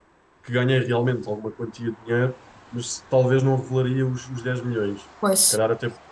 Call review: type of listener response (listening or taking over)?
listening